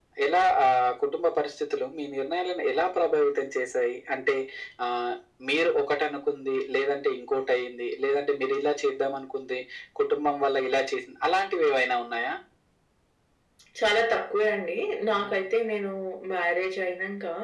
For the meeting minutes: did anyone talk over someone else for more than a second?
No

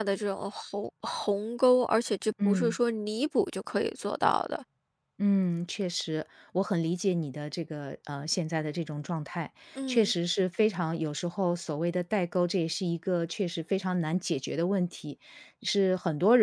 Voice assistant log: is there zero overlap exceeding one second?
Yes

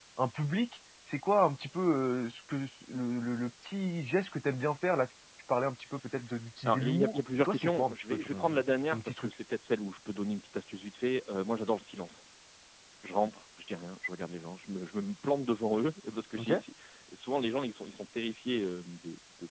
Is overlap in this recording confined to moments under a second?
No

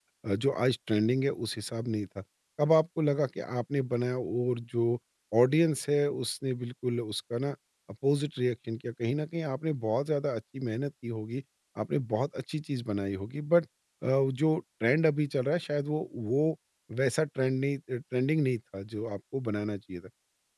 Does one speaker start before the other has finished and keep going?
No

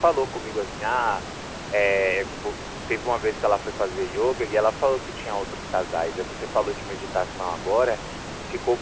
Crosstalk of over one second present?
No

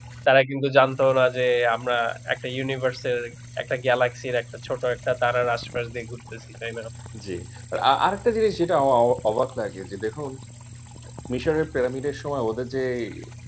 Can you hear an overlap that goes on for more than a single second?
No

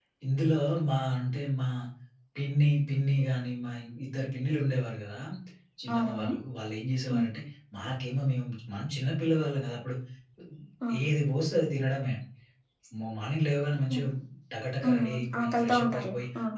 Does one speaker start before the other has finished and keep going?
Yes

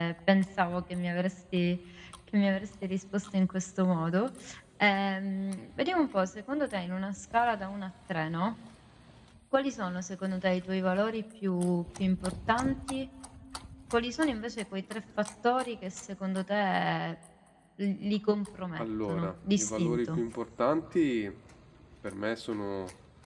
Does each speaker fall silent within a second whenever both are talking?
No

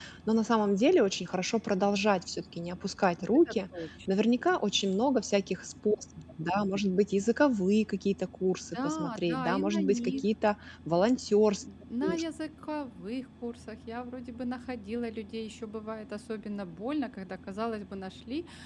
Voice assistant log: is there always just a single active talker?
No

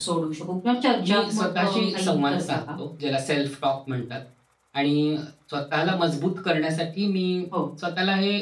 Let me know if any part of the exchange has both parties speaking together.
Yes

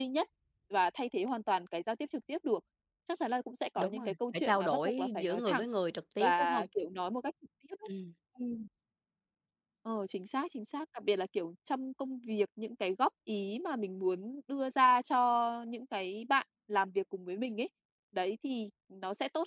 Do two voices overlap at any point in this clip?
Yes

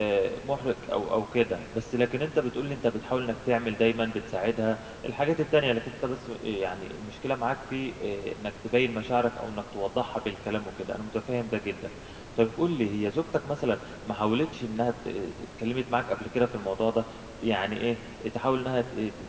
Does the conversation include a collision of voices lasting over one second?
No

